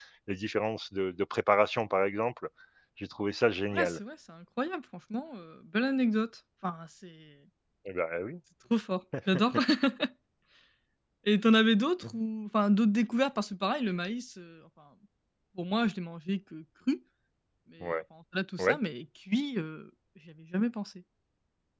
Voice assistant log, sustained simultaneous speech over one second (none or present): none